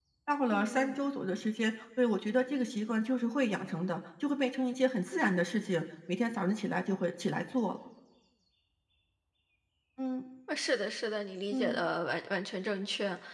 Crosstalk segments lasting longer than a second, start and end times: none

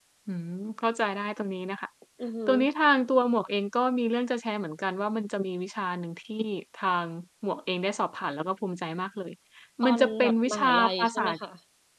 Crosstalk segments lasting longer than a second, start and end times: 9.8-11.3

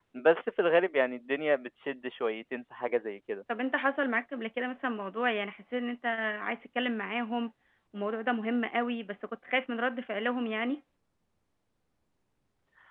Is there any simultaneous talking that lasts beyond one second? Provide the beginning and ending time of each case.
none

